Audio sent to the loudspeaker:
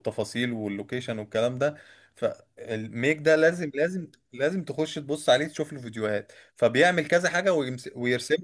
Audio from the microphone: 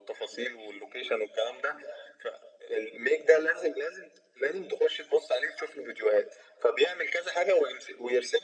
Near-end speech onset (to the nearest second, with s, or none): none